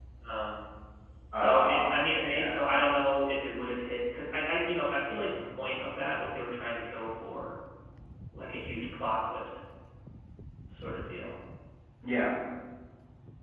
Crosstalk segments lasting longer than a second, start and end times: 1.4-2.7

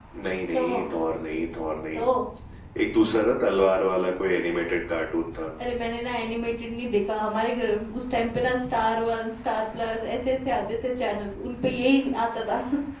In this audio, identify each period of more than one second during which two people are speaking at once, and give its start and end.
none

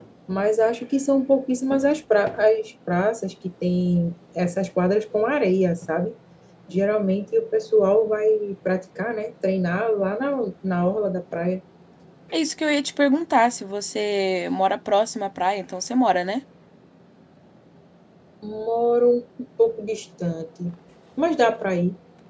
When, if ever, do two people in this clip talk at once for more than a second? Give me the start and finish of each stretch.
none

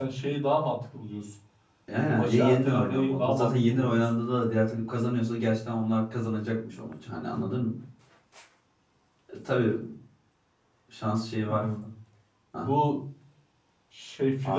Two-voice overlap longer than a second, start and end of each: 1.9-4.0

